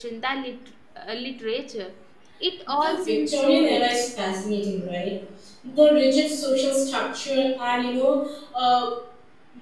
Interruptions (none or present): present